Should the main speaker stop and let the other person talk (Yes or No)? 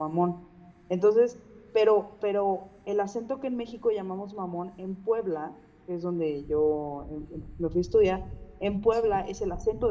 No